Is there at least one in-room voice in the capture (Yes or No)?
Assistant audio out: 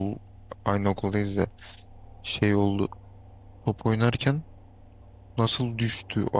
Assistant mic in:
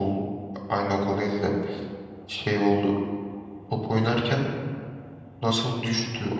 No